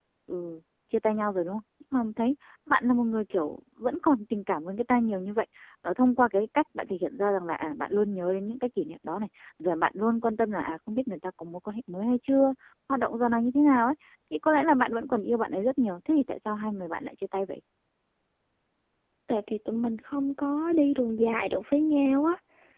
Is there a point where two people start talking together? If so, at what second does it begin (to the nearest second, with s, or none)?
none